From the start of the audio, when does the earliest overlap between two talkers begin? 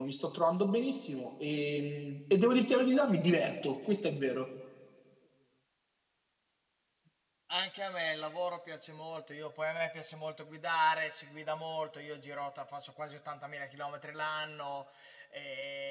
none

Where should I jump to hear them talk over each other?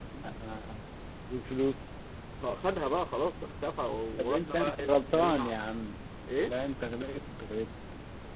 4.2 s

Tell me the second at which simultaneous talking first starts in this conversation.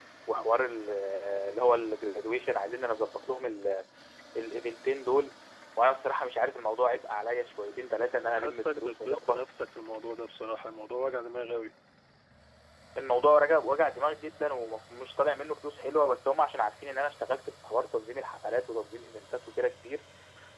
8.1 s

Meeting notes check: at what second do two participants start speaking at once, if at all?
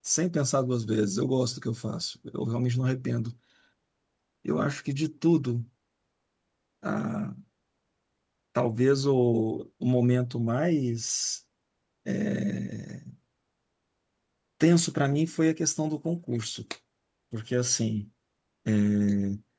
none

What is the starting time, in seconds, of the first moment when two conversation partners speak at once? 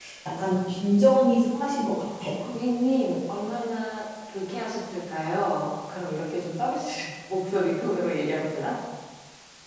none

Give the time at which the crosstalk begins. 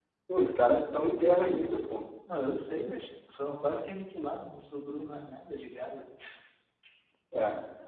none

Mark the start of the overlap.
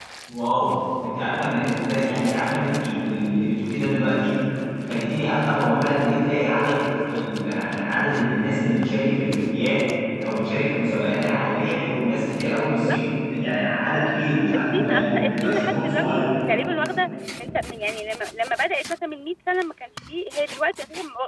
14.5 s

